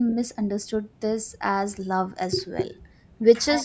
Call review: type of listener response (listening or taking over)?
listening